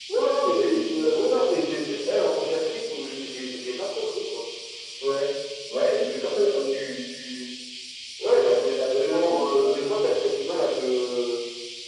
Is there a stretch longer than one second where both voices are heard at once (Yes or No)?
Yes